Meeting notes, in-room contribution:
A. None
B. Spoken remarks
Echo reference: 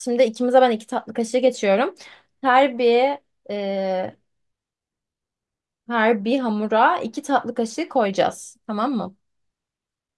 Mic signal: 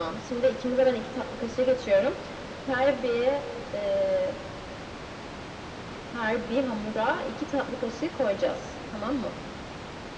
A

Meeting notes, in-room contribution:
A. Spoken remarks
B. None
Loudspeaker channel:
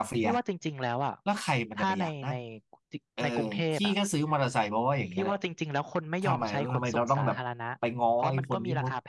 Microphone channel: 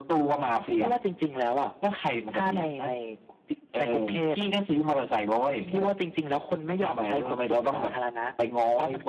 B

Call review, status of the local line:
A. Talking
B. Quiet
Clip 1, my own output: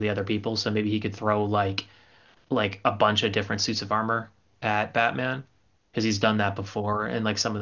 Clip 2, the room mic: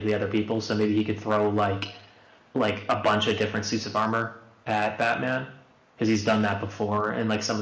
B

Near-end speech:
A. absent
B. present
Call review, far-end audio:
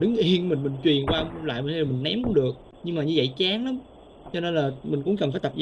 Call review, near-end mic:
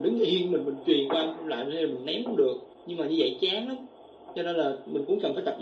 A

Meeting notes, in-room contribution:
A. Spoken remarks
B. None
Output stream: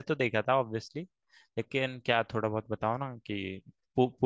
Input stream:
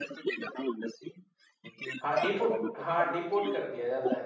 A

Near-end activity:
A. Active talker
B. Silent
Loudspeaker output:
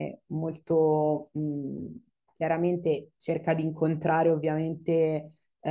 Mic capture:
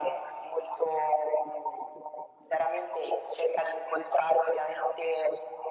B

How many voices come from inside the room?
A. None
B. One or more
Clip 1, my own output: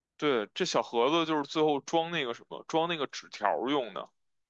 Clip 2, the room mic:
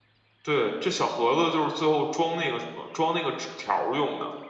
A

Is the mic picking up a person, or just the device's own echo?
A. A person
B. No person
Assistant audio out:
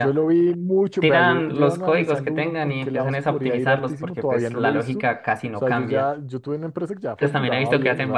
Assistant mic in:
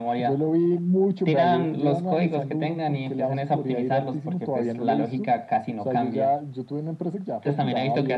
B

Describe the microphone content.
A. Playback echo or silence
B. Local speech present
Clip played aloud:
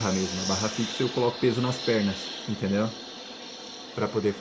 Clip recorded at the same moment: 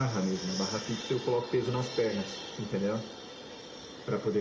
A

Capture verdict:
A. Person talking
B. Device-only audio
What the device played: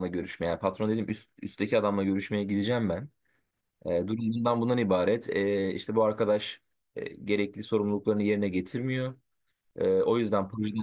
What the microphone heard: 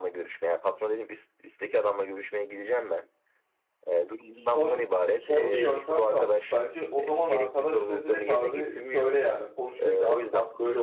A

